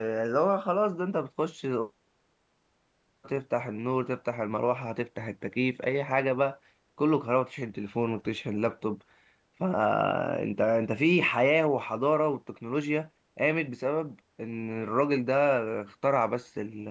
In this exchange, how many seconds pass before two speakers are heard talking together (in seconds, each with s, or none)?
none